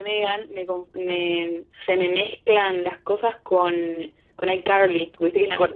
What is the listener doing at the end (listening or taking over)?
taking over